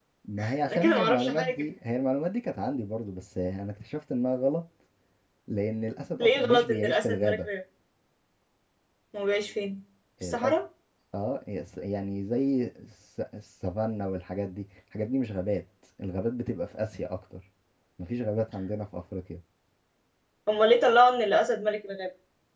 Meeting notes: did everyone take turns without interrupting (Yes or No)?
No